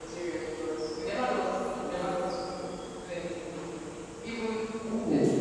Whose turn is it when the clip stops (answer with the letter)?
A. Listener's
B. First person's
B